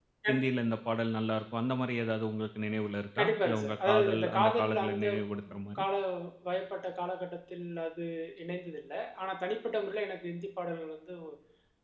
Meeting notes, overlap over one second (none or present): present